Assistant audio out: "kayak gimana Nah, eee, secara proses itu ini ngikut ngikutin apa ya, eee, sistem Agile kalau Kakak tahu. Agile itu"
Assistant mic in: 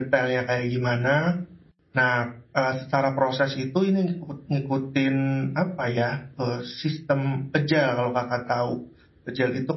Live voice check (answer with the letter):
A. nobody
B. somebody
A